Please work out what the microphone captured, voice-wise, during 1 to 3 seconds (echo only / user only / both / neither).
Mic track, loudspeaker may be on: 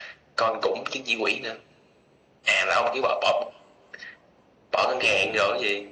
echo only